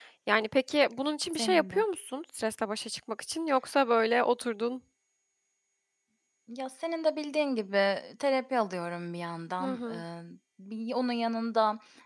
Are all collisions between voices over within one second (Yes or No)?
Yes